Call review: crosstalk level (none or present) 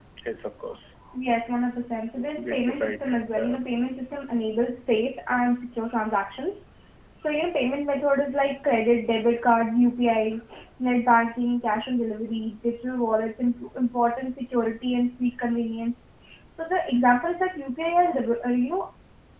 present